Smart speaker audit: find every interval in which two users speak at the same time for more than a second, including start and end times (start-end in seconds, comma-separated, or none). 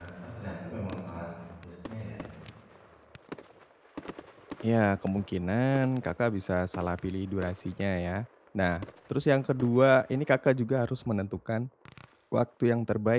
none